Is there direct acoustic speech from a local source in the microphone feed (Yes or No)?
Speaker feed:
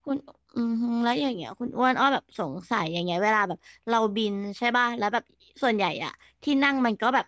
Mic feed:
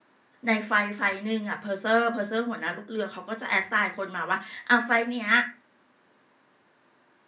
Yes